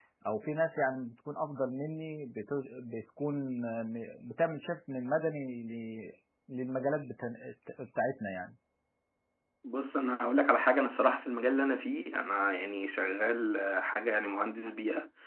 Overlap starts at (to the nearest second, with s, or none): none